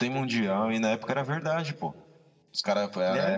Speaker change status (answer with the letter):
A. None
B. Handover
A